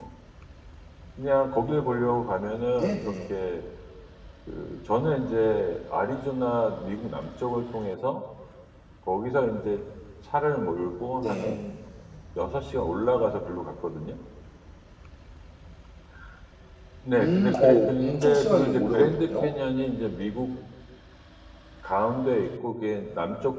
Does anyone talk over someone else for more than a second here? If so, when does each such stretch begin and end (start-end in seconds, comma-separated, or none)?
17.2-19.5